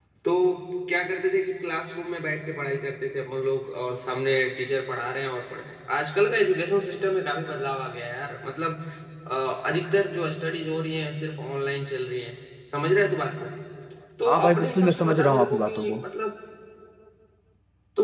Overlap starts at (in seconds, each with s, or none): 14.2 s